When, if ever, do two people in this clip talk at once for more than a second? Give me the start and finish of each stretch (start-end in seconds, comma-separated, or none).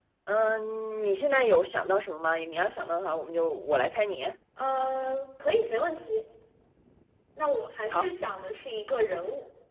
none